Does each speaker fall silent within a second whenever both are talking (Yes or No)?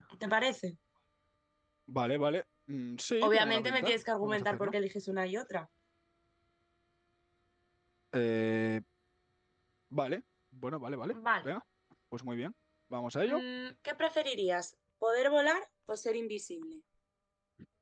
No